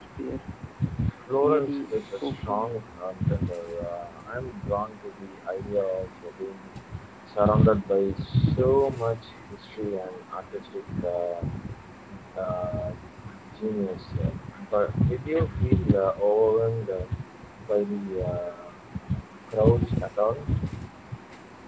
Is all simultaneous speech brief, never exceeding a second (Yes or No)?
No